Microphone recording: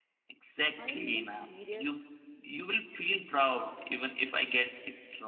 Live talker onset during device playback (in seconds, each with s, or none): 0.8 s